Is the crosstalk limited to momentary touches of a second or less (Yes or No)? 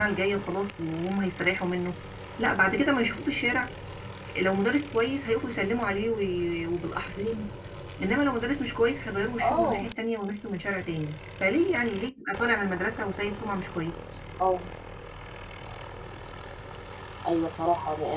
Yes